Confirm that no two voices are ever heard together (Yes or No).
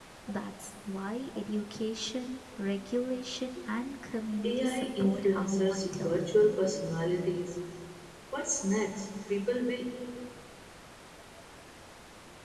No